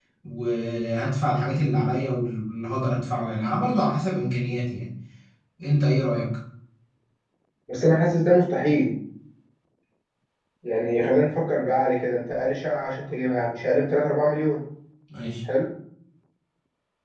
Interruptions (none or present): none